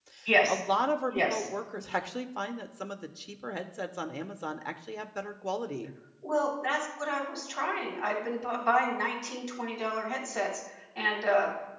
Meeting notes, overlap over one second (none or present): none